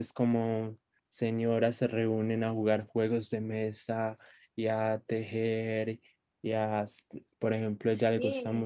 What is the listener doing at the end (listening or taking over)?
listening